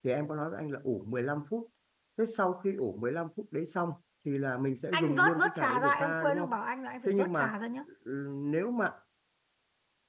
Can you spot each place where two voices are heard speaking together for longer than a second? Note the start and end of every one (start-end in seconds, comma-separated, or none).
4.9-6.6